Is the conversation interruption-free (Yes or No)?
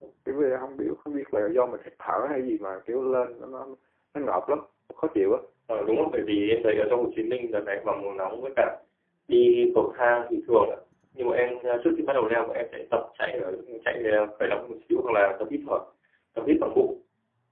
Yes